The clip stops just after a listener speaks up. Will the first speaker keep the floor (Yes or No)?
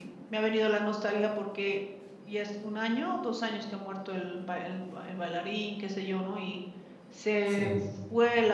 Yes